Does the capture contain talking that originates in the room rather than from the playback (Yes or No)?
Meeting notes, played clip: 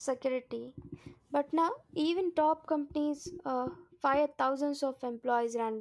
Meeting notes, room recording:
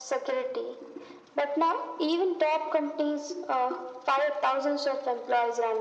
No